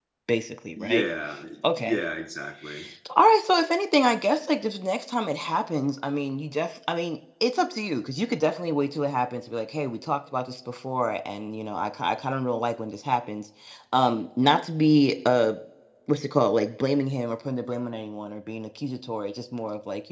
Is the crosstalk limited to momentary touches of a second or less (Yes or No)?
Yes